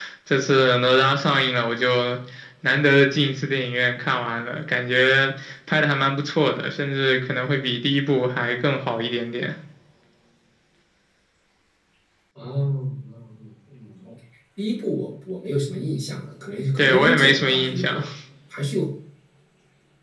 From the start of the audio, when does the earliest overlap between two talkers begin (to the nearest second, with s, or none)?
17 s